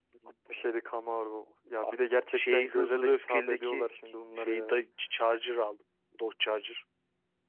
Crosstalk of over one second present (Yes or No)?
Yes